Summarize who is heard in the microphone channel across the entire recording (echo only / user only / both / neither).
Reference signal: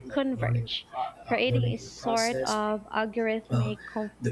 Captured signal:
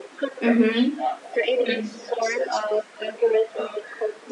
both